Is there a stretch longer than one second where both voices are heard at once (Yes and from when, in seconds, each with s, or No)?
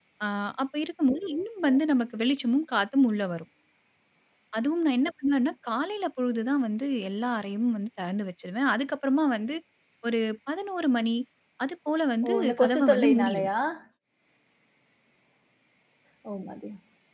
Yes, from 12.2 s